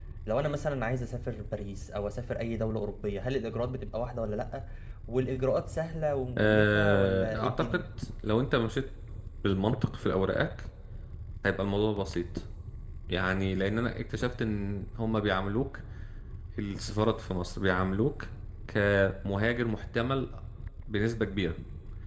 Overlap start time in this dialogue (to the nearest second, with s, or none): 6 s